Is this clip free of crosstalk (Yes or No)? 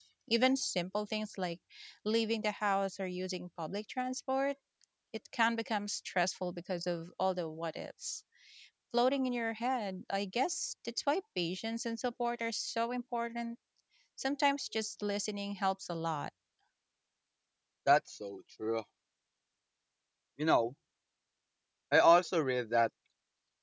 Yes